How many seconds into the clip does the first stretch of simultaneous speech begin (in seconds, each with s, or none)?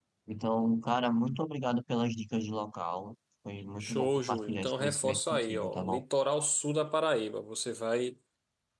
3.6 s